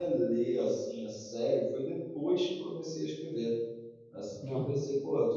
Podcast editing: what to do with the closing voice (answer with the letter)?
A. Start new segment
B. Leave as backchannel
B